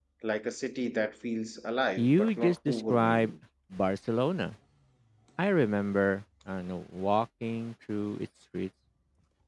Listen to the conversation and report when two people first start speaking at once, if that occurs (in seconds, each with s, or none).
2.0 s